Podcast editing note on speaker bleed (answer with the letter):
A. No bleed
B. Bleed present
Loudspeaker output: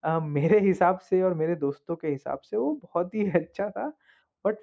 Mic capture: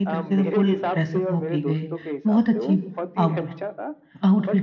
B